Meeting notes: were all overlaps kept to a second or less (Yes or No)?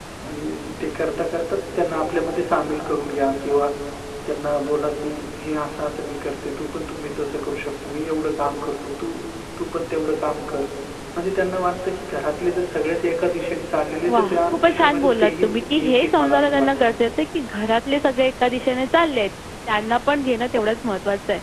No